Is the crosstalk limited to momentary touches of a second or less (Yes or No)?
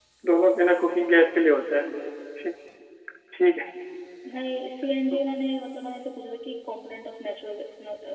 Yes